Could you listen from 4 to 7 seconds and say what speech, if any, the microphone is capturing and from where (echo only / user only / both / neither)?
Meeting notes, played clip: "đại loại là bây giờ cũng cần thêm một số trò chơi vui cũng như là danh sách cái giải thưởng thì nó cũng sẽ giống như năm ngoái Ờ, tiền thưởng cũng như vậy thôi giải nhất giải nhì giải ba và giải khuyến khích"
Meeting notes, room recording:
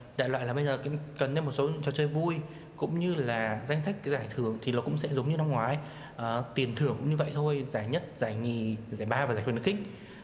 echo only